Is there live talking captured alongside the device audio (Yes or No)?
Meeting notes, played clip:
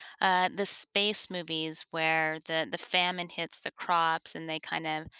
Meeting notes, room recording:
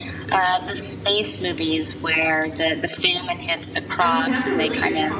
Yes